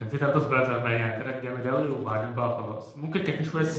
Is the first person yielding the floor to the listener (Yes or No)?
Yes